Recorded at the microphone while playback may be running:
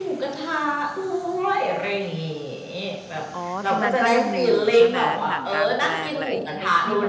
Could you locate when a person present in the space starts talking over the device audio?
3.4 s

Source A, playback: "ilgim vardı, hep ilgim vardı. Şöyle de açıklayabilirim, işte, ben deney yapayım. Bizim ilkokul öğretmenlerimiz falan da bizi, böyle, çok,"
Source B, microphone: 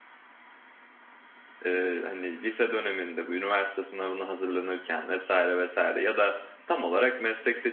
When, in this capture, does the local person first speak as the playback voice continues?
1.6 s

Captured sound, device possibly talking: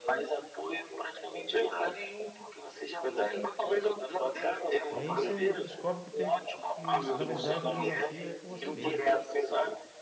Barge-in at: 4.9 s

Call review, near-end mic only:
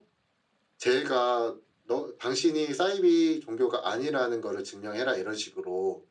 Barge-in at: none

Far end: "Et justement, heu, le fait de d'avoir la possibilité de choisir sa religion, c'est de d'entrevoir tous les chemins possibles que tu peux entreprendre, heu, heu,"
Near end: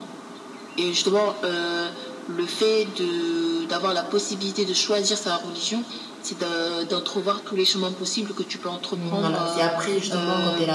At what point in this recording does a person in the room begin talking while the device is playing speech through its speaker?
8.9 s

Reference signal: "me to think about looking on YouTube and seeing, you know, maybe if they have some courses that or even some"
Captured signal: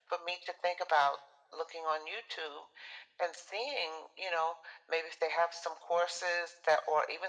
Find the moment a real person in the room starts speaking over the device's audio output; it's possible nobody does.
none

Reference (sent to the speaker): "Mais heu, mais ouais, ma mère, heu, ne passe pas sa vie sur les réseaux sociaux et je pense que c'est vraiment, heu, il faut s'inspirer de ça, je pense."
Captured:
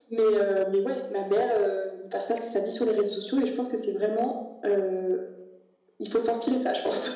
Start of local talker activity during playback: none

